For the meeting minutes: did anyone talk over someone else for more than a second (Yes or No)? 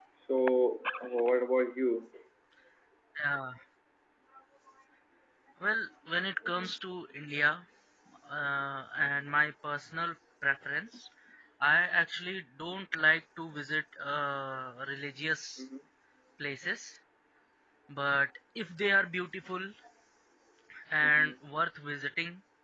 No